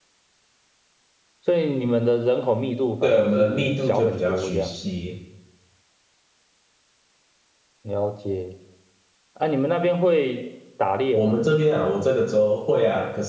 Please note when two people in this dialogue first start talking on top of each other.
3 s

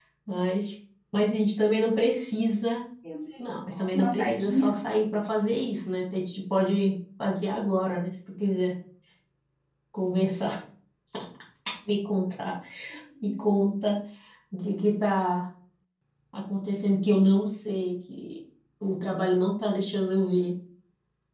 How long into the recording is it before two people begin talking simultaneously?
3 s

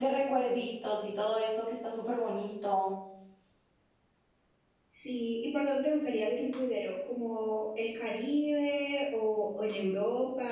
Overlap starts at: none

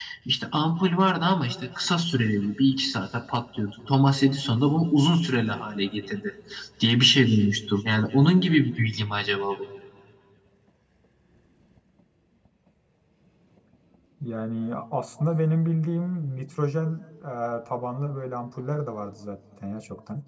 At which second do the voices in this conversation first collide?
none

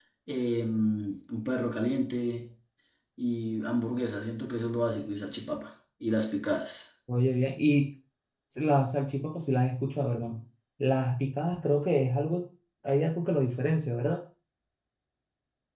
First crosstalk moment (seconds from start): none

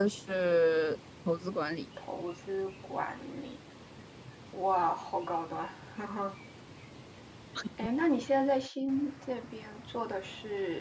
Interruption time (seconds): none

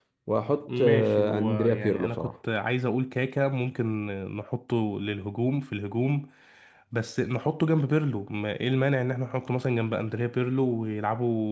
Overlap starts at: 1 s

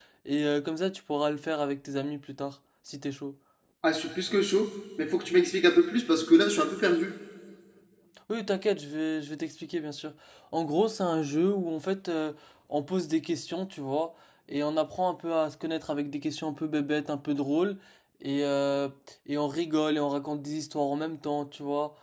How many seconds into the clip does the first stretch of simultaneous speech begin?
none

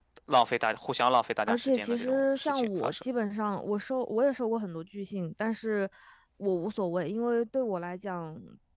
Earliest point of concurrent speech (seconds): 1 s

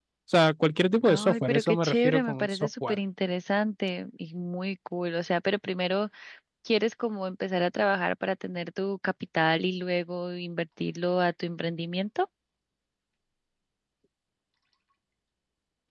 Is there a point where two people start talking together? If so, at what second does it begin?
1 s

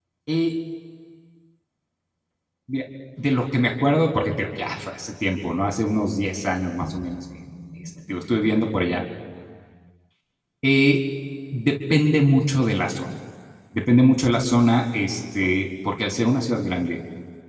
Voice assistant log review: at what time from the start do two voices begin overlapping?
none

